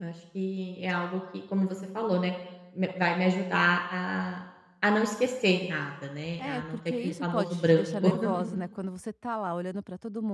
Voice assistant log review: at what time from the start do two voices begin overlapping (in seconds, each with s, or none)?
6.4 s